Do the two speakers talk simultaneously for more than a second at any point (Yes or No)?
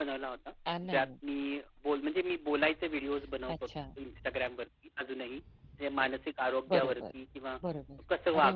No